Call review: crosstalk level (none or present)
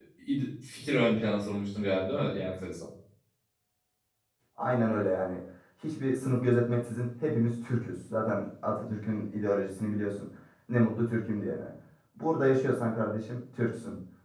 none